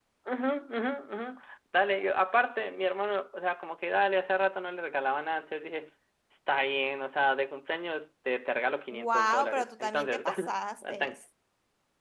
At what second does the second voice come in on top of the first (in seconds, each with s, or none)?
8.9 s